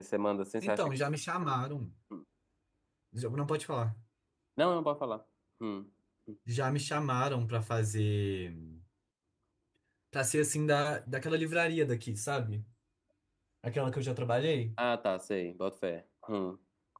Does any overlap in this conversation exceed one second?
No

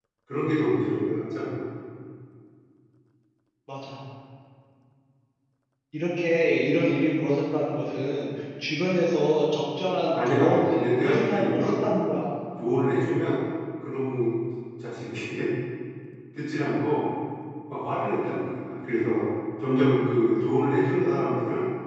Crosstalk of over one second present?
Yes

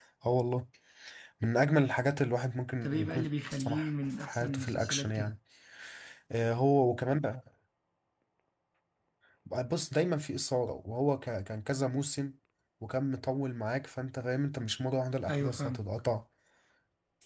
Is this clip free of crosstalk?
No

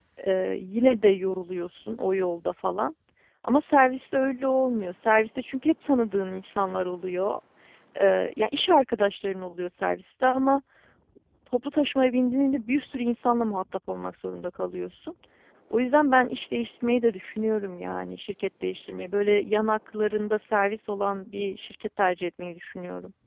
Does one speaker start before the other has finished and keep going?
No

